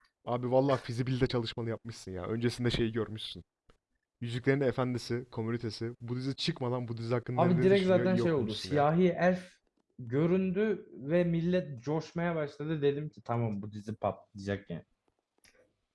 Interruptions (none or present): present